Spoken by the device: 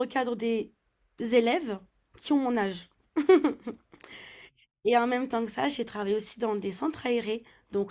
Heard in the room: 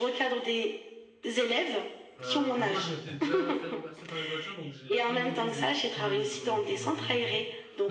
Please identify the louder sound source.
echo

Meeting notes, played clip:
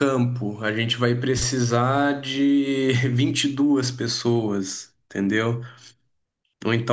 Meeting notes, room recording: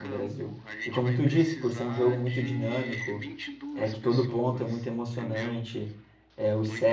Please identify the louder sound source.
user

